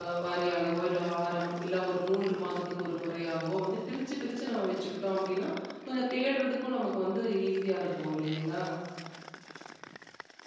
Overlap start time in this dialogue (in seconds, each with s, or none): none